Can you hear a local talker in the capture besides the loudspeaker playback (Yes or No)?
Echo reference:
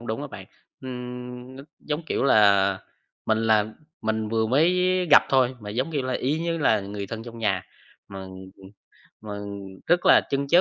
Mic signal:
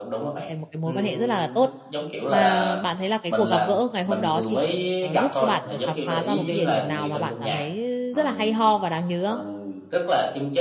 Yes